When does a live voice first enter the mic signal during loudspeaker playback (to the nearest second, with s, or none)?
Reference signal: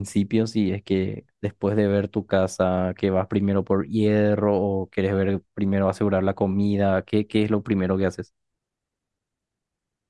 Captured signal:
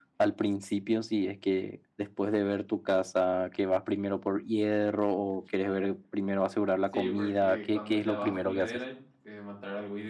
7 s